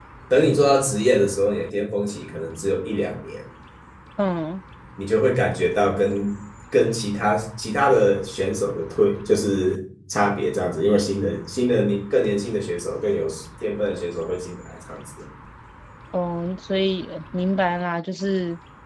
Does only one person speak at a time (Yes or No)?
Yes